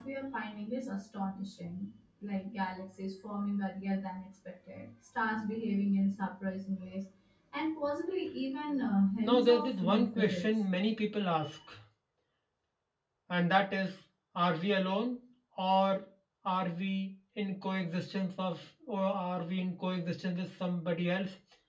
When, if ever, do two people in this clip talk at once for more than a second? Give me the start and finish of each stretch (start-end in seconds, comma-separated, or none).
9.2-10.5